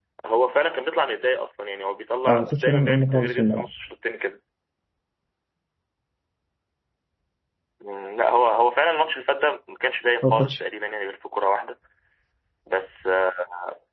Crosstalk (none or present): present